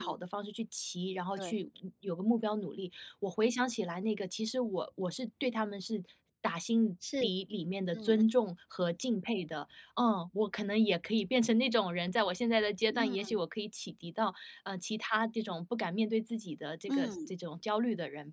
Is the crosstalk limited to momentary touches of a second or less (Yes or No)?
Yes